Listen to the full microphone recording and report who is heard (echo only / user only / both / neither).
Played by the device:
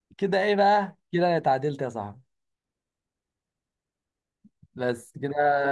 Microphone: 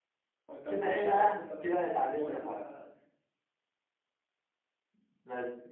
both